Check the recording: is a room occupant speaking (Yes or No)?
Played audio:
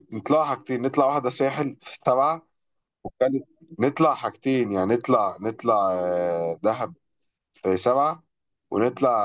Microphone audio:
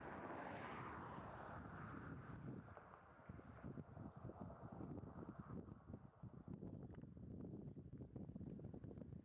No